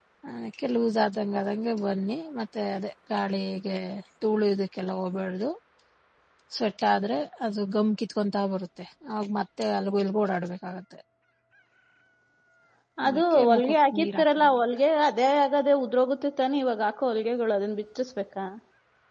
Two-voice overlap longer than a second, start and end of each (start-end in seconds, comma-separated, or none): 13.1-14.6